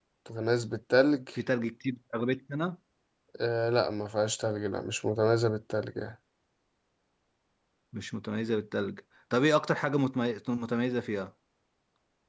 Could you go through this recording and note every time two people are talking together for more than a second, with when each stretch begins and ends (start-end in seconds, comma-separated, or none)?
none